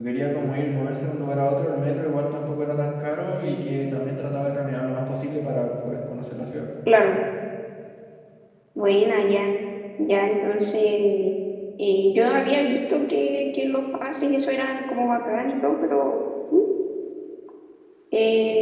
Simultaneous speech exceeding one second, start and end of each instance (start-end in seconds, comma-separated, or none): none